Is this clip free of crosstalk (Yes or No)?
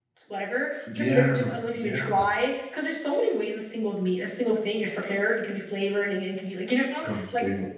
No